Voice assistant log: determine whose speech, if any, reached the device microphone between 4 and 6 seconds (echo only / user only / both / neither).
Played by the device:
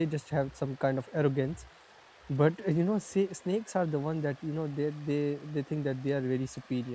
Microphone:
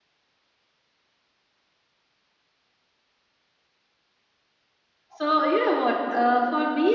user only